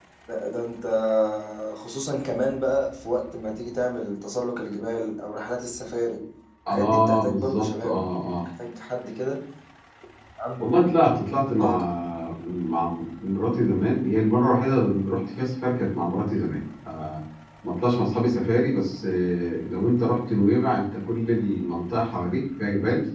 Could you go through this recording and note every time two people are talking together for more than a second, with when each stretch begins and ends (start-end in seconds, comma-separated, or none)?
6.7-7.9